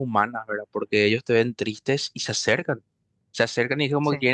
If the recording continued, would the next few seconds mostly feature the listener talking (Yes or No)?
No